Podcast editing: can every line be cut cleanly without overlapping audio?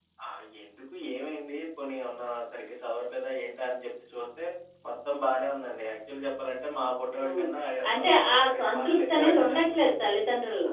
No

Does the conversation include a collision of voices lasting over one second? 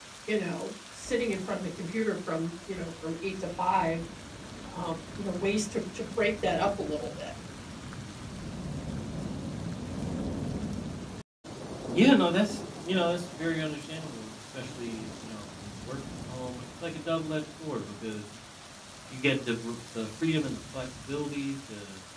No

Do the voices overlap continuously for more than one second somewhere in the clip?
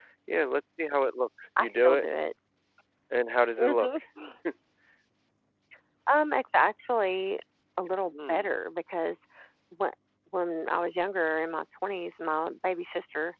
No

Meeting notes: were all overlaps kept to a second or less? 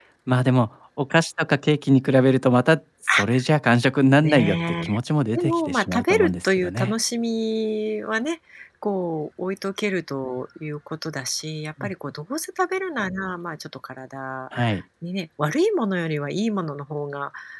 No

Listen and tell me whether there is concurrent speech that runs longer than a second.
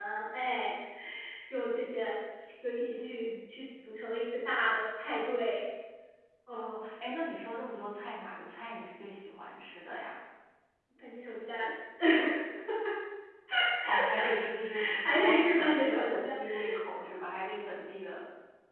Yes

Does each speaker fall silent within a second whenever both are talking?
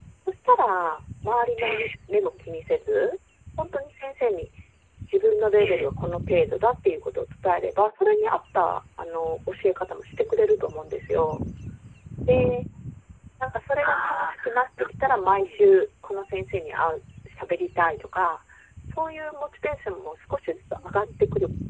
No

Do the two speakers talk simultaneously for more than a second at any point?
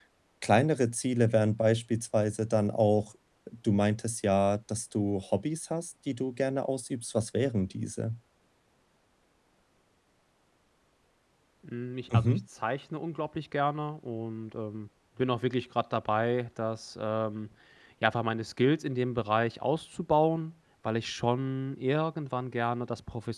No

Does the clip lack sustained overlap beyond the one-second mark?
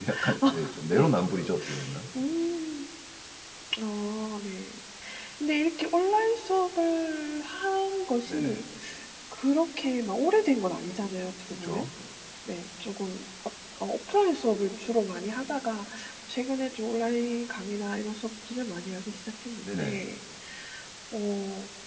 Yes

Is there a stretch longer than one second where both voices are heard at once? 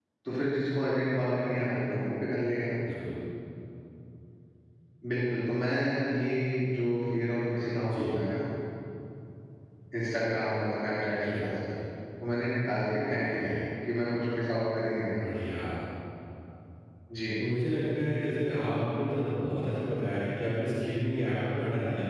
No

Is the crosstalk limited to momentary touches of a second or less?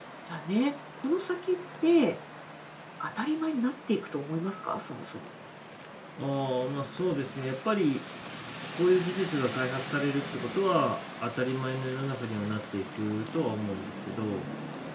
Yes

